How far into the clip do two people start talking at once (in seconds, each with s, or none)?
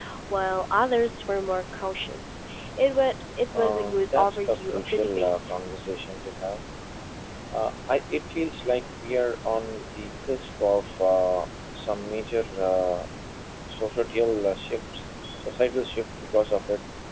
3.5 s